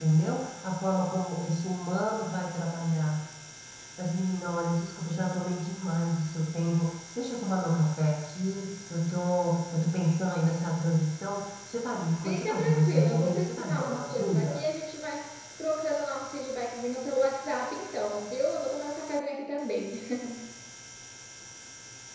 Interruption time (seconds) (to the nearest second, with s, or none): 12 s